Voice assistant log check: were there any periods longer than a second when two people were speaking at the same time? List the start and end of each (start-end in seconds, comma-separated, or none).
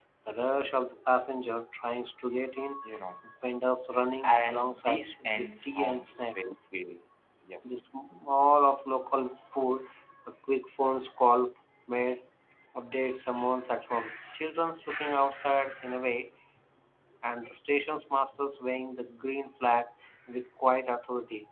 4.2-6.5